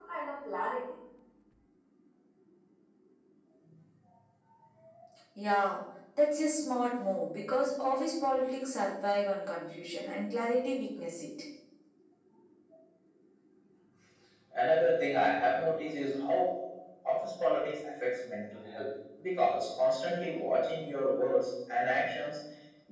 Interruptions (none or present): none